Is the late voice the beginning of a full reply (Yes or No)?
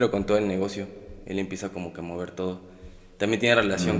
No